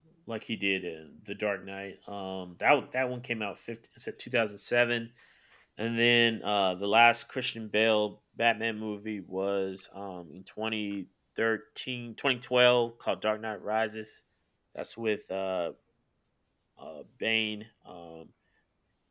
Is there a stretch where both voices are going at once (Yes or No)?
No